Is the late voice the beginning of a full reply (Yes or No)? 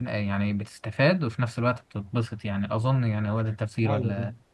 Yes